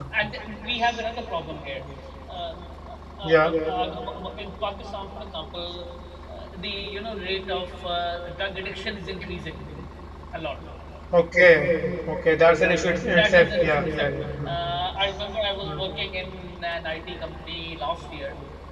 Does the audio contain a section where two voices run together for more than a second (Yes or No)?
Yes